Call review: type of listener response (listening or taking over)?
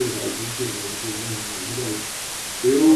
listening